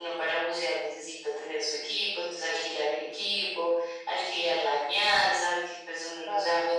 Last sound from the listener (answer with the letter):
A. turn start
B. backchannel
B